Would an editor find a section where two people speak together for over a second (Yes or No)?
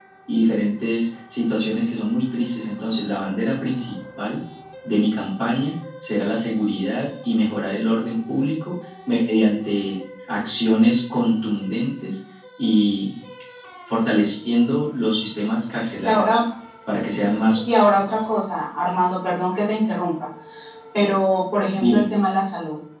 No